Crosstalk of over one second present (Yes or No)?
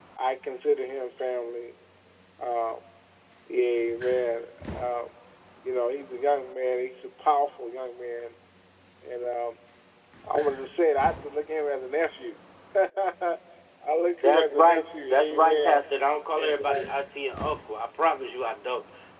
Yes